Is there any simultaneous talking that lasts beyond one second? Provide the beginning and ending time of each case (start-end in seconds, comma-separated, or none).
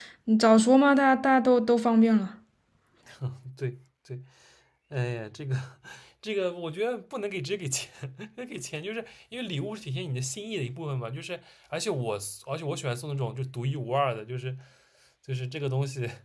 none